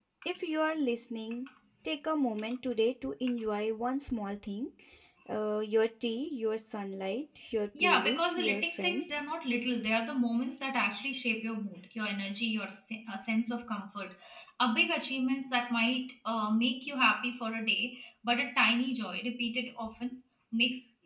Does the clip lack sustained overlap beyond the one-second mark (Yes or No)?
No